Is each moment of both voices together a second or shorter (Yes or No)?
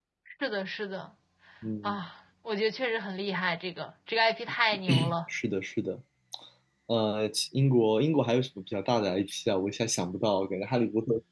Yes